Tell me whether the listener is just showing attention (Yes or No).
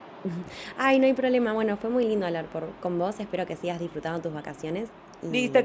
No